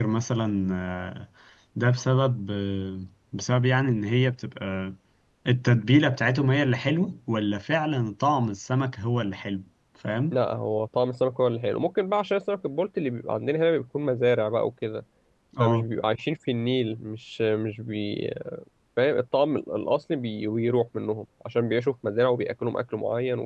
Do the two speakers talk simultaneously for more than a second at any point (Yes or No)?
No